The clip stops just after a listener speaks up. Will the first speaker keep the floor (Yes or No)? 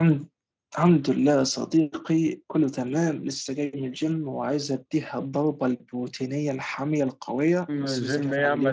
No